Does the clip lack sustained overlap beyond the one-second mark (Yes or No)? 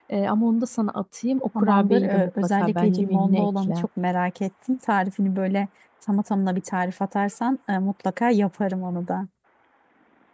No